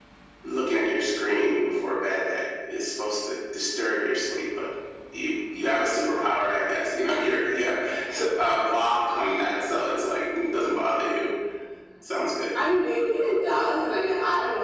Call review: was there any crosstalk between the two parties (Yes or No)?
No